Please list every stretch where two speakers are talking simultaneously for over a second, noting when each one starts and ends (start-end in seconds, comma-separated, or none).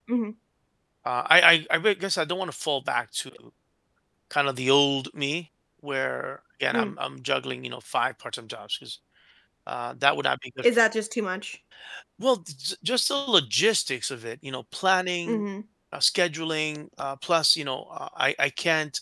none